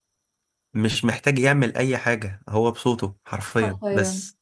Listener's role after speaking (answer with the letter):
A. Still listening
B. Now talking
B